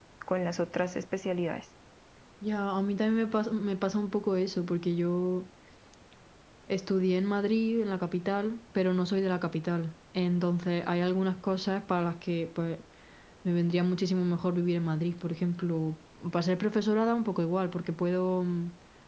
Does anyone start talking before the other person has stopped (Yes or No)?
No